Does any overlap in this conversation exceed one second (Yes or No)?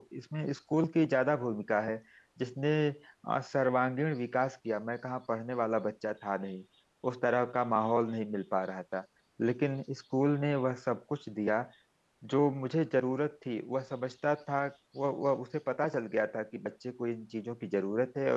No